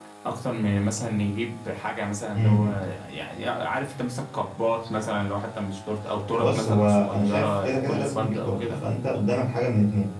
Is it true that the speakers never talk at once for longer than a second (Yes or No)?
No